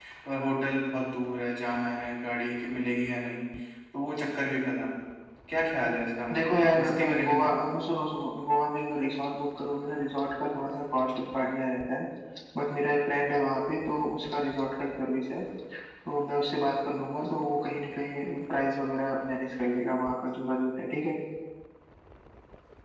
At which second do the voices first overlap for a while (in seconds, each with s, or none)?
6.3 s